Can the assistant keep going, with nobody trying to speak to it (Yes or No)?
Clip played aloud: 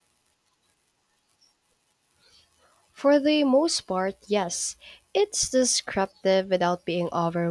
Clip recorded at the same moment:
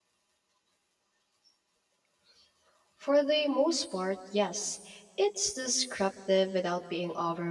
Yes